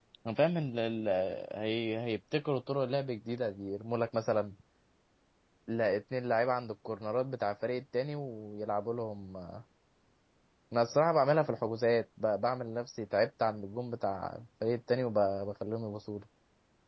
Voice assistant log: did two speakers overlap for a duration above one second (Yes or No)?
No